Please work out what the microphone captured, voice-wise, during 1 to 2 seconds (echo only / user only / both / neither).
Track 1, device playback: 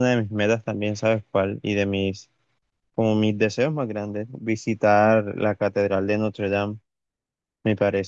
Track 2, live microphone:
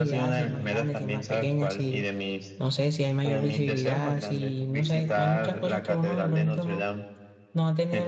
both